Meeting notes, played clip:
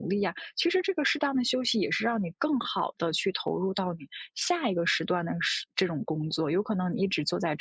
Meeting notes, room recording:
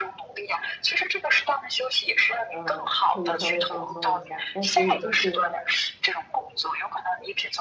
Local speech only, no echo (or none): 呃，可以稍微放松一下，但是也就是。